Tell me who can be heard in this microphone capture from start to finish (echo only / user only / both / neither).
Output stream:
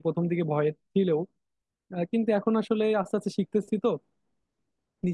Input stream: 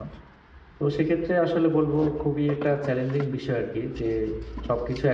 user only